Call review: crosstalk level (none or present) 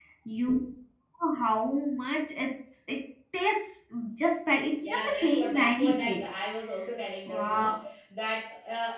present